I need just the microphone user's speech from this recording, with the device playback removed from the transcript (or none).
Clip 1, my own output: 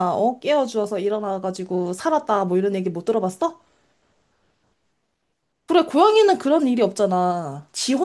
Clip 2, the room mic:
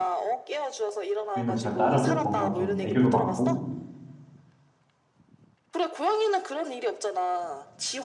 주인을 잘 따르고 뭔가 좀 애교도 많고